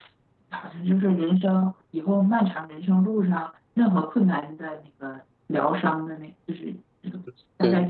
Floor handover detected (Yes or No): No